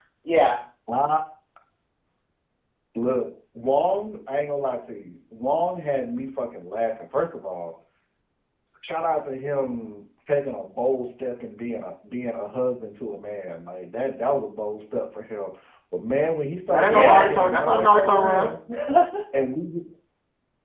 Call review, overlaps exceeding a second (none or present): present